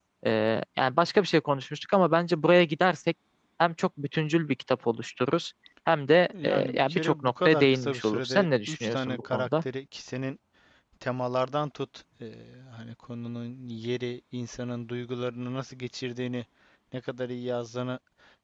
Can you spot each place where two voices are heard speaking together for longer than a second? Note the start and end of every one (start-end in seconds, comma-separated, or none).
6.4-9.5